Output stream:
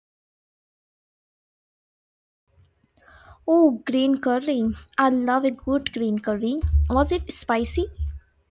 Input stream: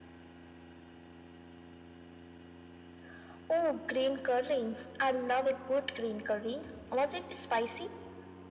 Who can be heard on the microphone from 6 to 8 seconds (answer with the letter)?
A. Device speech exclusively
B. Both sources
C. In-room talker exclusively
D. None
A